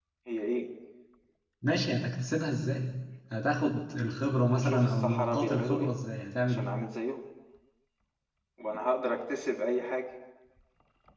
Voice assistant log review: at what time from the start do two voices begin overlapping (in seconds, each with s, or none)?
4.5 s